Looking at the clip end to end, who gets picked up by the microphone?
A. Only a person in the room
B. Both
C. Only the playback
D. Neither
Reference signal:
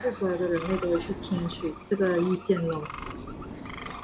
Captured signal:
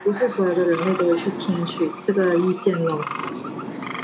C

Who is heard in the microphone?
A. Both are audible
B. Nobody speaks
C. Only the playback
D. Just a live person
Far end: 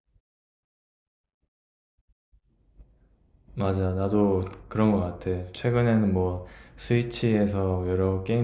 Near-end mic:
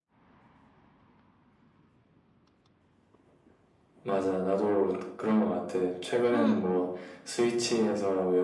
A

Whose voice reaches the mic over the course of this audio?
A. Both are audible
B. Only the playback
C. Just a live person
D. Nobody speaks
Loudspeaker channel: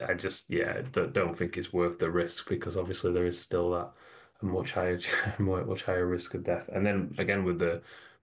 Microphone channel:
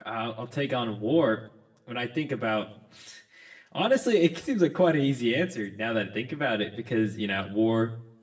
C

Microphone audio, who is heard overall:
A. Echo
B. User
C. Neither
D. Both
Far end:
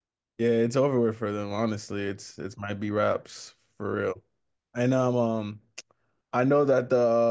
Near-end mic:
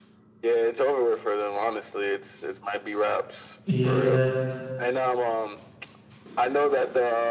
D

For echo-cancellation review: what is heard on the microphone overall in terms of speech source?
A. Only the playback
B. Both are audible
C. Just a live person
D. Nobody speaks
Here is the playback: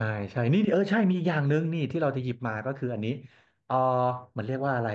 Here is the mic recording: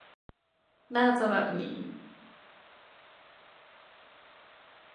C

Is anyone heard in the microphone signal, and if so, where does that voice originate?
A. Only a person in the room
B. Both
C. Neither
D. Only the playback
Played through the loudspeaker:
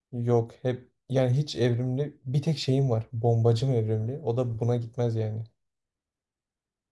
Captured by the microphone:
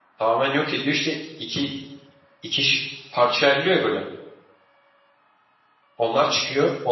A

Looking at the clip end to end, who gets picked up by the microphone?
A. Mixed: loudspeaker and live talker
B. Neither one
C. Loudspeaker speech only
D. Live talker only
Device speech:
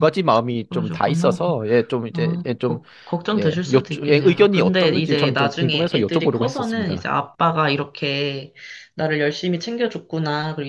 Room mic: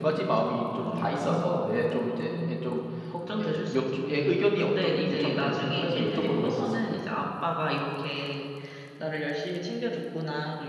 C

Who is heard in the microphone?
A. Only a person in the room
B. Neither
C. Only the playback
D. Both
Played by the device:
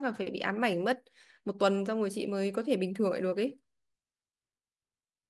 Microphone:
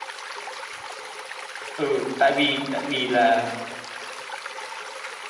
A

